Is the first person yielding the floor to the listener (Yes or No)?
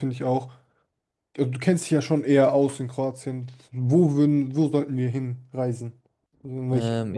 Yes